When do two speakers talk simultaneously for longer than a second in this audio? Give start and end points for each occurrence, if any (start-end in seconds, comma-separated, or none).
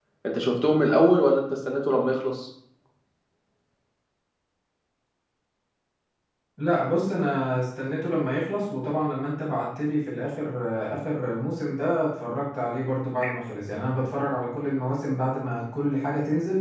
none